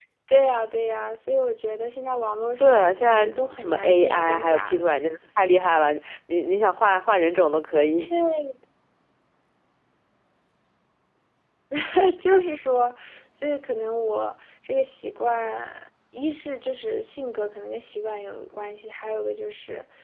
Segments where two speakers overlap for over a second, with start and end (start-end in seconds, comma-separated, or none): 2.6-4.8